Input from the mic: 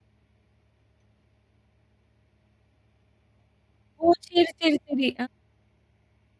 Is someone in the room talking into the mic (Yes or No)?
Yes